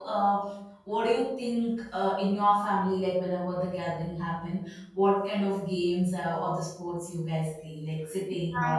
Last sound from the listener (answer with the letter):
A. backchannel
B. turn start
B